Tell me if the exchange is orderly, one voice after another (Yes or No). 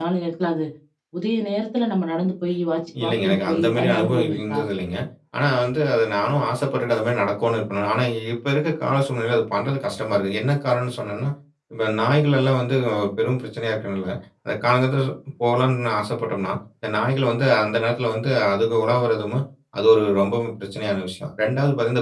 No